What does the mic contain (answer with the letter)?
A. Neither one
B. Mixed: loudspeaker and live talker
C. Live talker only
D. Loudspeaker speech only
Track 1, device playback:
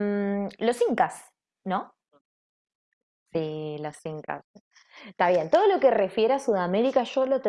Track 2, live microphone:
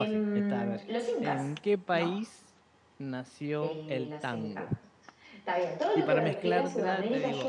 B